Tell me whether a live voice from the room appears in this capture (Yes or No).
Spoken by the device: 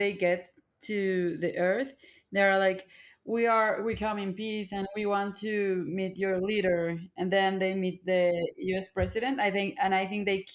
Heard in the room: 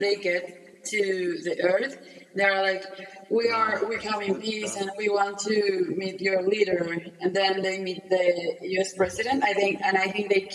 Yes